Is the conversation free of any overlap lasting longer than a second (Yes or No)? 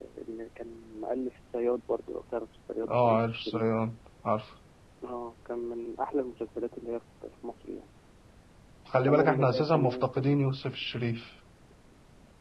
No